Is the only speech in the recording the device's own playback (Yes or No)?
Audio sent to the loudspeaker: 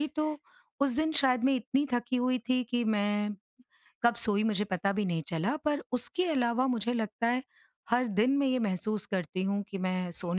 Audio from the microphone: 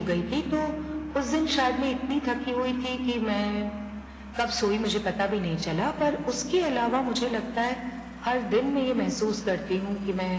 Yes